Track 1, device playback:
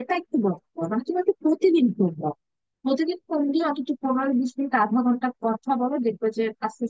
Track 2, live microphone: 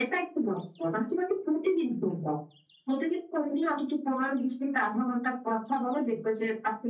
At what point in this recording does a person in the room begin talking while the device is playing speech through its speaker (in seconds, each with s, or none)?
none